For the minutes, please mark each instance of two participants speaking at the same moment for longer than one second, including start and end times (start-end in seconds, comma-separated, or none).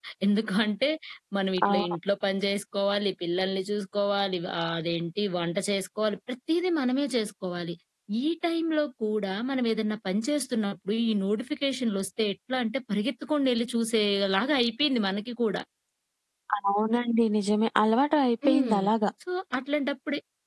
none